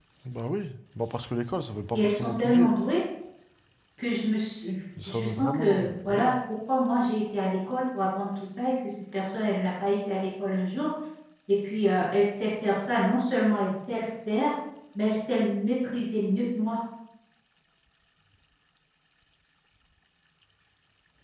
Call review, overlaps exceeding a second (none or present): present